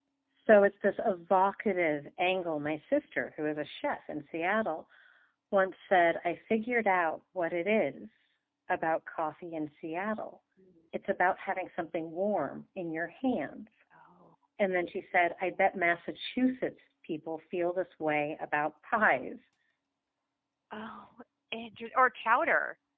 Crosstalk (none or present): none